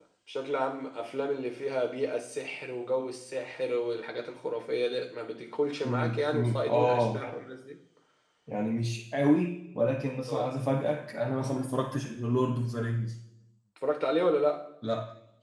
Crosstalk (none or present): present